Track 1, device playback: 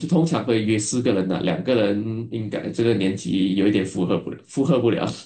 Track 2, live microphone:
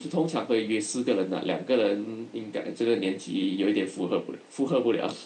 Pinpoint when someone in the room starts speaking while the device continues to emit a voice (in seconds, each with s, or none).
none